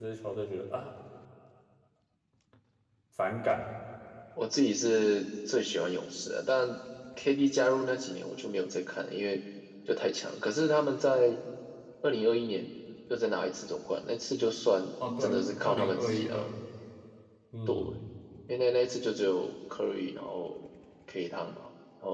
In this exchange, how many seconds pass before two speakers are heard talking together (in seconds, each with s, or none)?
15.2 s